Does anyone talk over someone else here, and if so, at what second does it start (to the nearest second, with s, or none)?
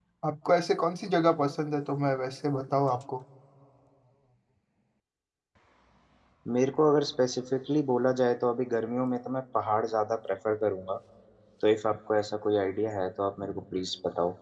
none